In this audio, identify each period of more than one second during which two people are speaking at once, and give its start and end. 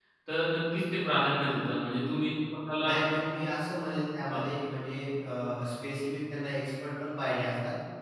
none

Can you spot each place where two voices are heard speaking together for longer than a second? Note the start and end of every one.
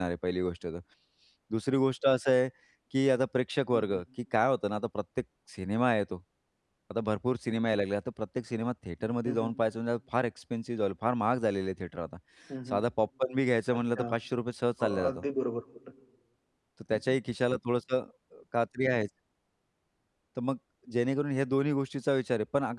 none

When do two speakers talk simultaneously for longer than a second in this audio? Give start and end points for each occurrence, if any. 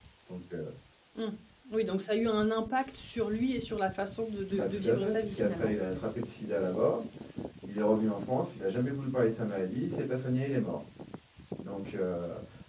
4.5-5.7

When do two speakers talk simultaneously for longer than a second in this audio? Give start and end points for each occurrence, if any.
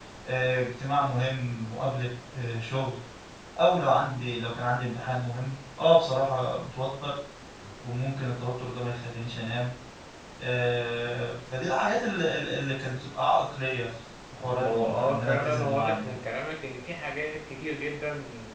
14.4-16.2

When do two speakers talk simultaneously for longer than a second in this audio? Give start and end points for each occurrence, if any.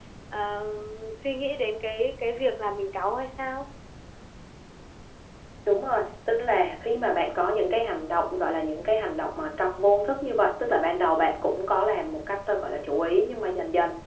none

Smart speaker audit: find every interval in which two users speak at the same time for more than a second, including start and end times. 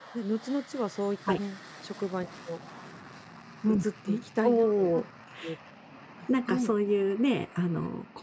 3.7-5.0

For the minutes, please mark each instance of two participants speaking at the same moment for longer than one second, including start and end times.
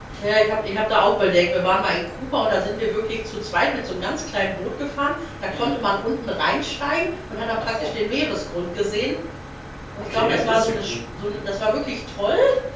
10.0-11.4

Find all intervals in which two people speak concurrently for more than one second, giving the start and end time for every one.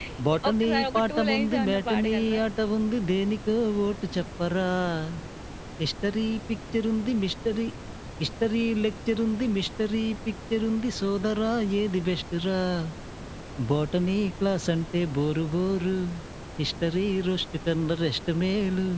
0.5-2.4

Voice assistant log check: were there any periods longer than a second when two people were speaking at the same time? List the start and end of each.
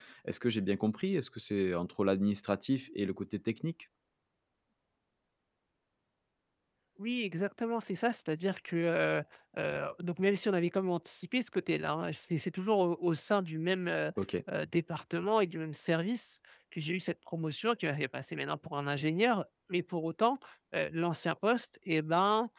none

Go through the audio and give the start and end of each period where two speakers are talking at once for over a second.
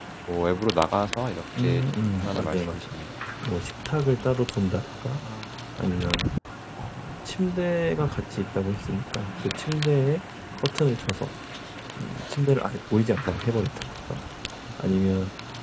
1.6-3.0

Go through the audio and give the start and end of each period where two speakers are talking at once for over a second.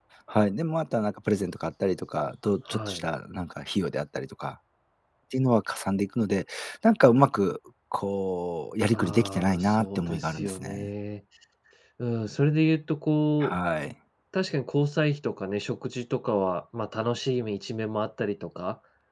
8.9-10.9

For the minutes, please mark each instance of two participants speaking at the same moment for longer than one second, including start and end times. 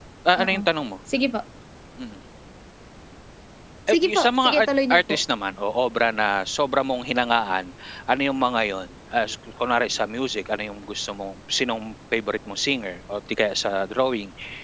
3.9-5.2

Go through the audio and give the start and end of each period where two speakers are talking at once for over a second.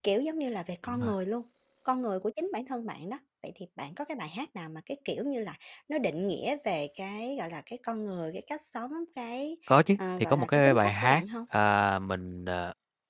10.0-11.2

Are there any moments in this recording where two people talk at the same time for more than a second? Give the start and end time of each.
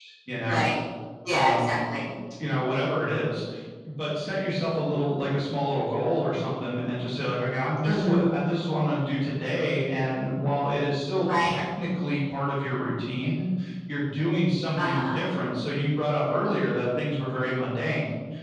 none

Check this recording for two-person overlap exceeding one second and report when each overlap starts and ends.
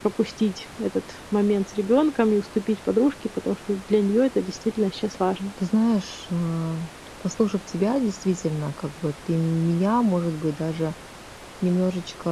none

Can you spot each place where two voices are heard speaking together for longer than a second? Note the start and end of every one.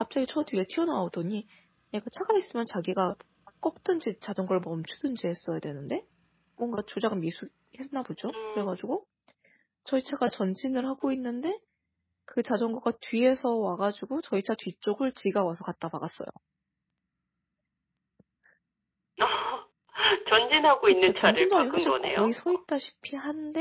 20.9-22.5

